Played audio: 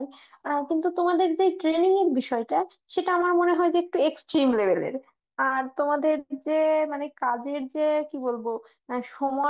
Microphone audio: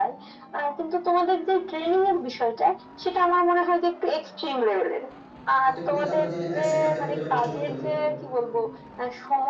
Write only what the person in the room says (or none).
আর তুমি তো জানো যে আহ, সেনাতে কতটা কষ্ট করতে হয়